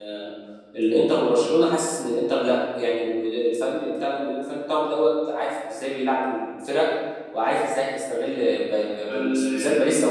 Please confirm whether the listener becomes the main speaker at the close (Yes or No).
No